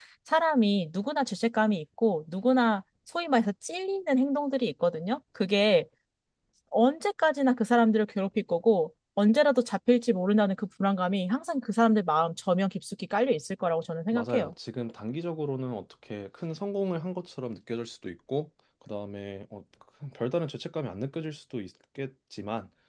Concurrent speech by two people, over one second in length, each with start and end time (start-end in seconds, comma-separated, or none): none